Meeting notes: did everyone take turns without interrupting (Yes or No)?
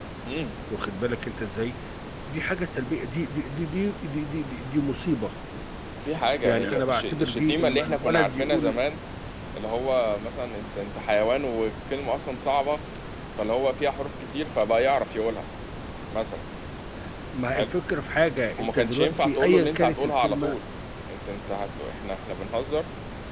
No